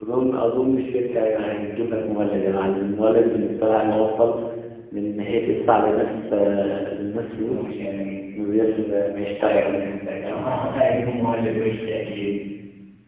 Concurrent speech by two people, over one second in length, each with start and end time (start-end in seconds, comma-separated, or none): none